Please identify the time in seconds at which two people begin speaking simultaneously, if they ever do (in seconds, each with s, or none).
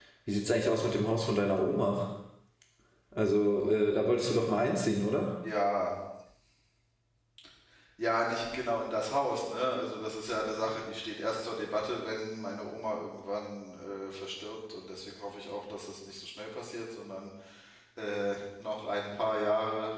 none